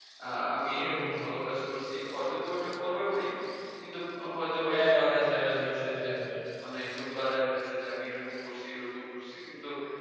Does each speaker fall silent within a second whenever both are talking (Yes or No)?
No